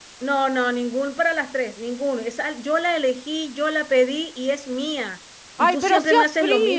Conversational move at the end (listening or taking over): taking over